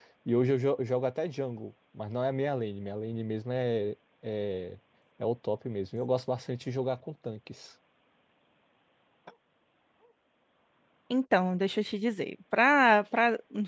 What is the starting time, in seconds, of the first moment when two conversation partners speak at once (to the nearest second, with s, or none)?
none